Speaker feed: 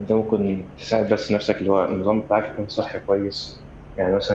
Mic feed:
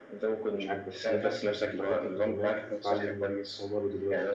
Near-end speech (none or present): present